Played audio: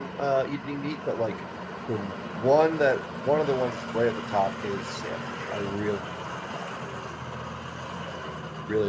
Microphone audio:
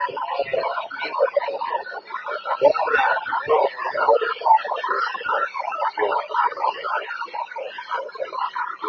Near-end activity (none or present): none